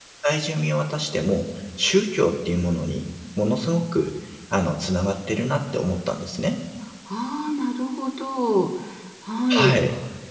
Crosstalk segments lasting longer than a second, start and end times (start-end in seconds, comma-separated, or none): none